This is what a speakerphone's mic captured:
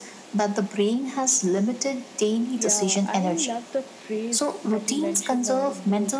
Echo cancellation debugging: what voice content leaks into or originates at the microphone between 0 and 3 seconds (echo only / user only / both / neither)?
echo only